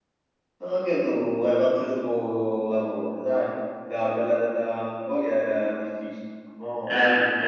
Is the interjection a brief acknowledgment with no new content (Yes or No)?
No